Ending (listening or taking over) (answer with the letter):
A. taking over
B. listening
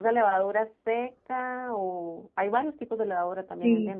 A